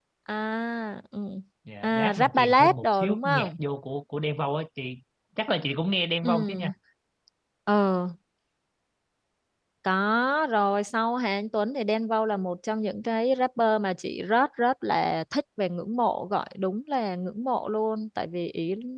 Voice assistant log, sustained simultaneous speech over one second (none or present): present